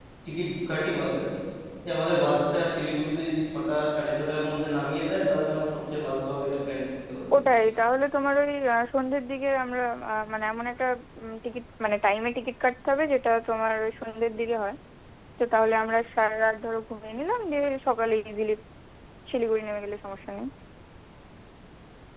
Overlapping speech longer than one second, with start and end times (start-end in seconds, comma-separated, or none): none